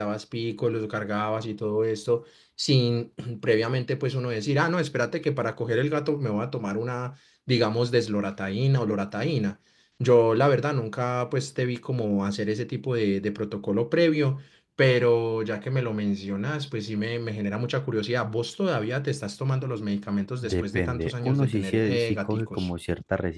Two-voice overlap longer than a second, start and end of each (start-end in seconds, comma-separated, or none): 20.4-22.7